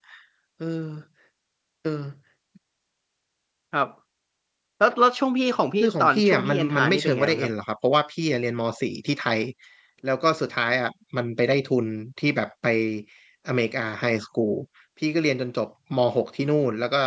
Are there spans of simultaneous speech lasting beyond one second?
Yes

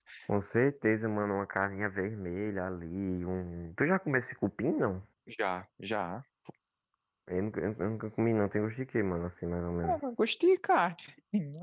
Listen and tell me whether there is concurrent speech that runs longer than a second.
No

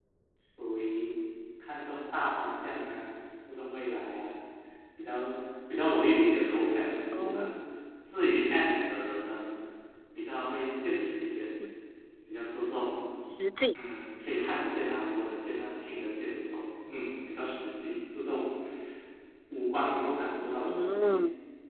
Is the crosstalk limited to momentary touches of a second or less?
Yes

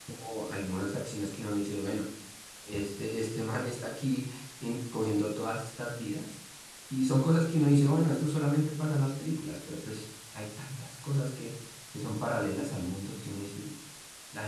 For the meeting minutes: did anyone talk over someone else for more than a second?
No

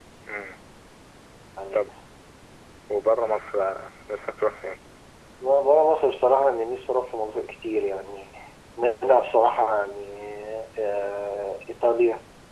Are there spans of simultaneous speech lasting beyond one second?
No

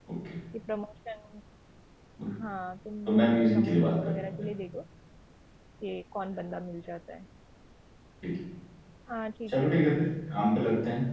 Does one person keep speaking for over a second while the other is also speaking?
Yes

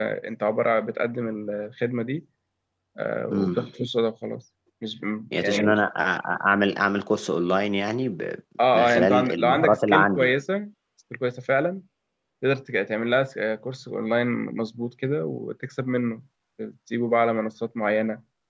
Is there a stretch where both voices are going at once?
Yes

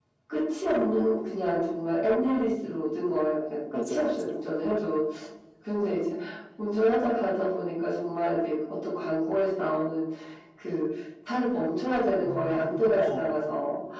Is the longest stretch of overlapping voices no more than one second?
No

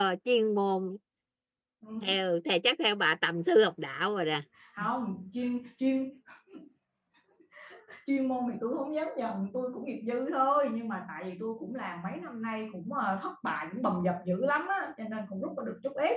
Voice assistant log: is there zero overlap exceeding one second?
Yes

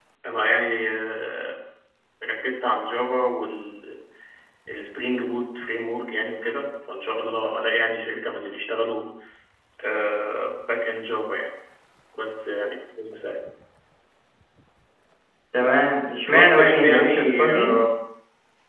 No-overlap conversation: No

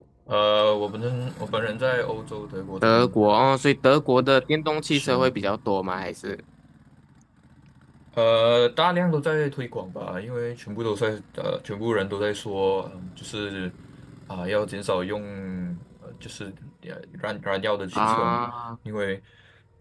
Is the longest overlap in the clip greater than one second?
No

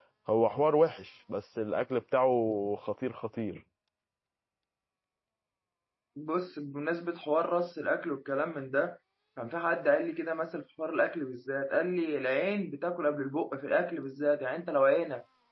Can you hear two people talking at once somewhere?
No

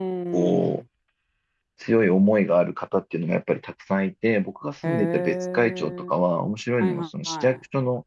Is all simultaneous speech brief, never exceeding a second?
No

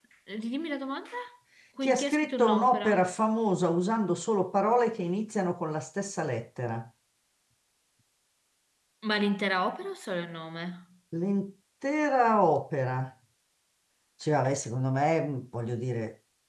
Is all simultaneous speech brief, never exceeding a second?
No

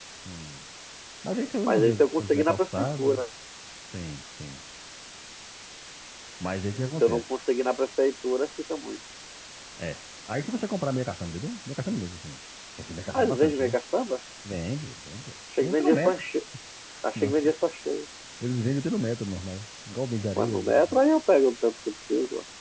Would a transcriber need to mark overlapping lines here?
Yes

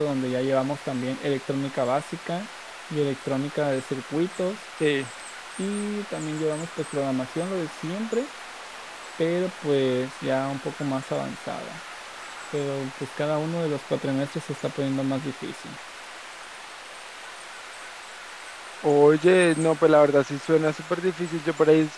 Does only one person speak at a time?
Yes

